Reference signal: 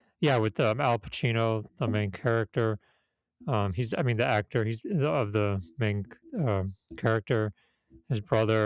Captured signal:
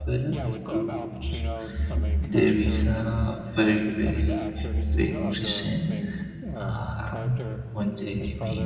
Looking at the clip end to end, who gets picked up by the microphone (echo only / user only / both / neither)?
both